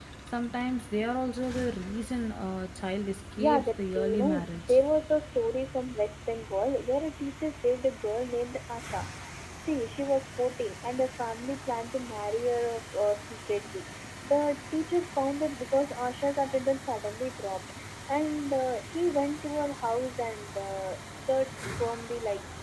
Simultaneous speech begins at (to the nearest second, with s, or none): 3 s